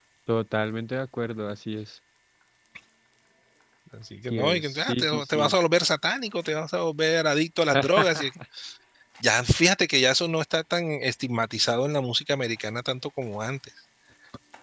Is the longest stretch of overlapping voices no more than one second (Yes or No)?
No